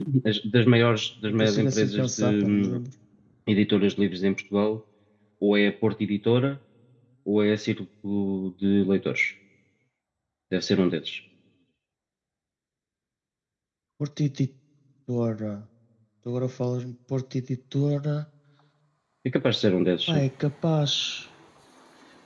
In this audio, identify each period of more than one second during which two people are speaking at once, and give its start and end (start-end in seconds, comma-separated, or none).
1.3-2.8